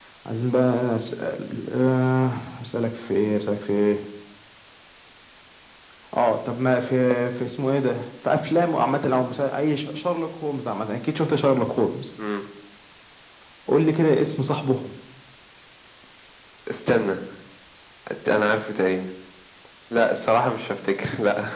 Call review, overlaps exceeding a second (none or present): none